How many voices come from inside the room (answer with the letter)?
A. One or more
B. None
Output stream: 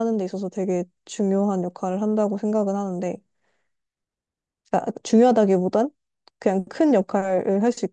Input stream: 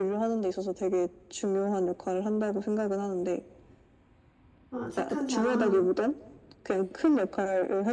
A